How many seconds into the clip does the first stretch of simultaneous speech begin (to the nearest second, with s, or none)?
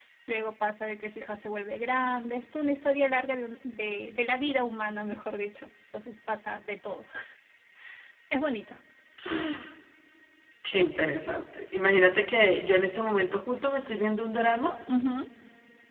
none